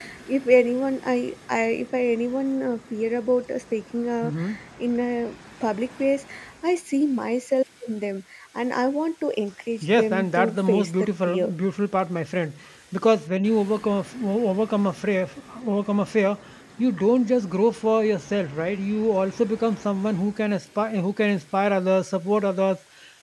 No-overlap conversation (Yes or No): No